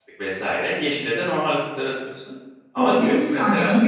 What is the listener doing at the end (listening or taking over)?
taking over